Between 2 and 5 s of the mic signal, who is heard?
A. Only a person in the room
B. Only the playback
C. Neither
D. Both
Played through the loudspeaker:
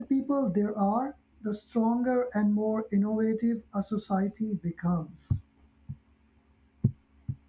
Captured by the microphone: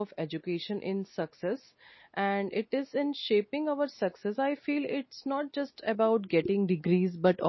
A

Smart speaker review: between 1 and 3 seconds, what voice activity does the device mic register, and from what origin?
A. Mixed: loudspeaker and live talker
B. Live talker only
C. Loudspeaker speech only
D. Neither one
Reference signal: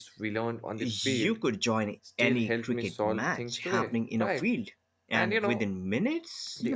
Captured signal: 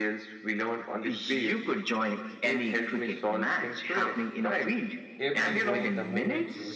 C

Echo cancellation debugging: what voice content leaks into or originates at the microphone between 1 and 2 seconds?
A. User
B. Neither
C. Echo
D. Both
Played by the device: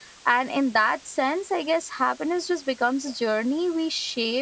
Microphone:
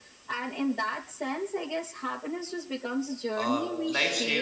C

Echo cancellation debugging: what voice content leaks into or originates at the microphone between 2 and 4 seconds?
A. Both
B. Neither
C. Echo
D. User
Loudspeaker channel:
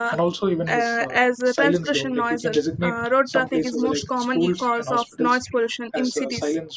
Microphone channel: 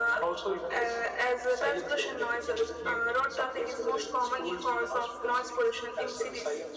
C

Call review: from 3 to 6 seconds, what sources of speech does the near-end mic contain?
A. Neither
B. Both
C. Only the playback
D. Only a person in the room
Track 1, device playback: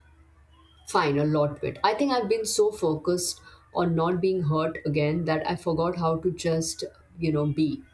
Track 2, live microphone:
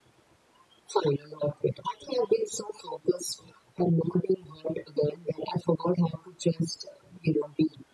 C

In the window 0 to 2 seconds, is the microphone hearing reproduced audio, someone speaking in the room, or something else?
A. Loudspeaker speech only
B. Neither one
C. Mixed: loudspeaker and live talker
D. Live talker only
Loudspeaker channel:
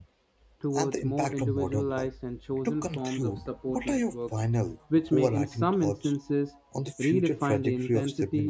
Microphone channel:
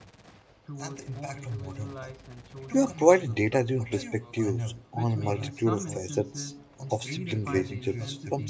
A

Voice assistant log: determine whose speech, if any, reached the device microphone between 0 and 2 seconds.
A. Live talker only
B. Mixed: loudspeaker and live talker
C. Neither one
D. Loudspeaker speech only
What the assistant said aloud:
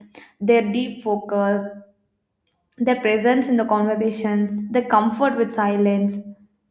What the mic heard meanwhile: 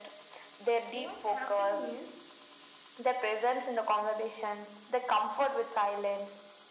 B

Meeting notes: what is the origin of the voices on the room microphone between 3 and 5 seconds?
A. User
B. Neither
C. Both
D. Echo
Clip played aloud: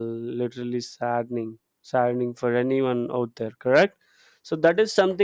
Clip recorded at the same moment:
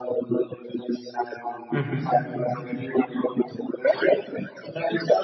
D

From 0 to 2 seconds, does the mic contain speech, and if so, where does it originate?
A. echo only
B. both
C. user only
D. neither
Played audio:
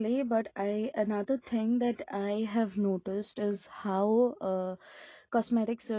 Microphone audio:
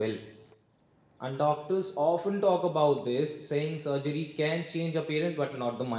C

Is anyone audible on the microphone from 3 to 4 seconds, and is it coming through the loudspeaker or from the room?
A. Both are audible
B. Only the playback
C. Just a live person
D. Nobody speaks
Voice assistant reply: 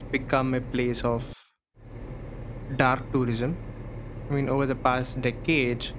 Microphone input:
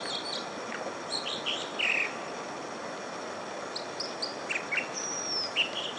D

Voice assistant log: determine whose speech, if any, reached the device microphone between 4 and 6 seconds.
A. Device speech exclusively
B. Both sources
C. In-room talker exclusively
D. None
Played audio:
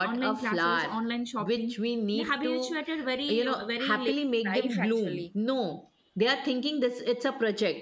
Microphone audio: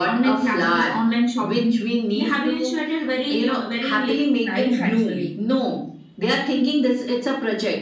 A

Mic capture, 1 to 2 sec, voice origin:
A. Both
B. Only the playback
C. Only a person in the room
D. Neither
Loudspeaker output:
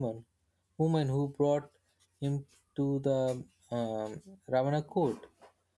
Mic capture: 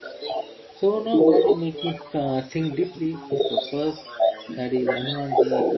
A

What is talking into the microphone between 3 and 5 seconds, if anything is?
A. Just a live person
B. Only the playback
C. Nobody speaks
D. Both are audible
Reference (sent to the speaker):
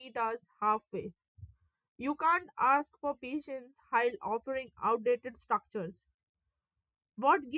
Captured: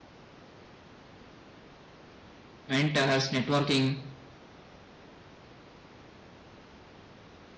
A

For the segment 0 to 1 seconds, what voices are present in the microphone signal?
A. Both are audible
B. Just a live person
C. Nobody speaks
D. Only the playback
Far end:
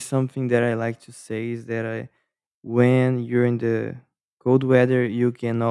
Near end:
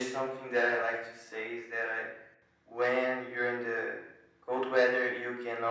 D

